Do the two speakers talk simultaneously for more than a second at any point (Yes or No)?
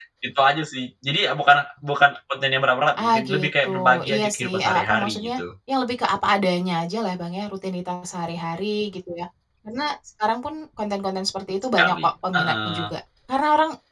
Yes